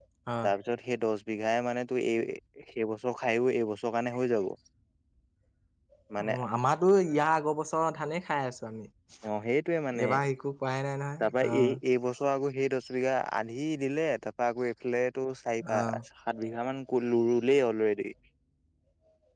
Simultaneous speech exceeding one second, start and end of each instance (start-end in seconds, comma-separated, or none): none